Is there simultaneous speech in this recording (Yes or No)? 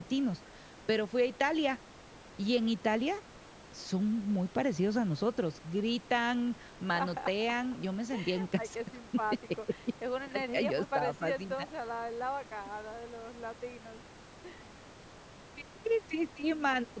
Yes